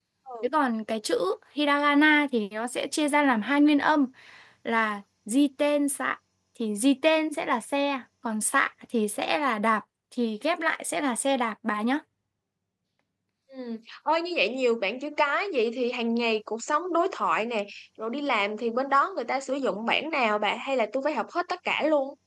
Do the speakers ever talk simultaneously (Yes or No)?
No